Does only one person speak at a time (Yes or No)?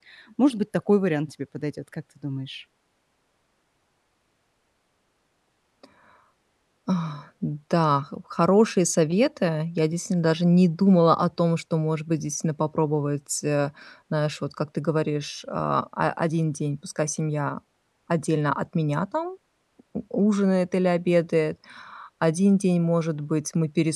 Yes